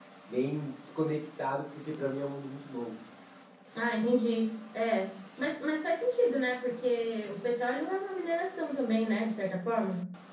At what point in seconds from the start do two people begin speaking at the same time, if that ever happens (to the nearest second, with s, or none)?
none